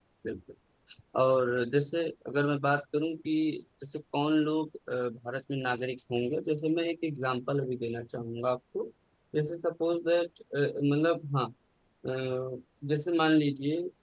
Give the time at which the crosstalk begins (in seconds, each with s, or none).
none